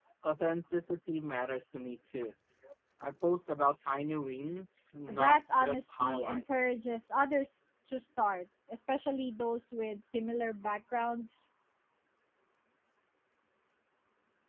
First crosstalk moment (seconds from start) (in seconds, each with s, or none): 5.1 s